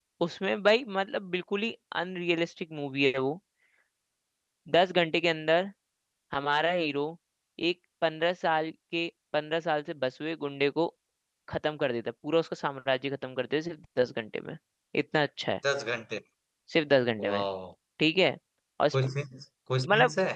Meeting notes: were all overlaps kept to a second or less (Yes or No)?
Yes